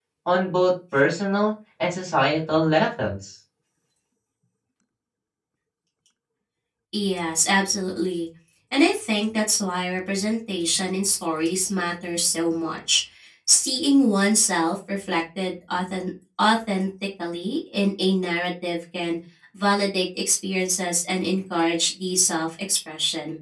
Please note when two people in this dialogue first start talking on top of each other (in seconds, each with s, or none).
none